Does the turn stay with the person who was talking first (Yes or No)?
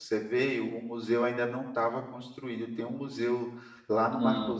Yes